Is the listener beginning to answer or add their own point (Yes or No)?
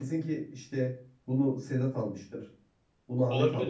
No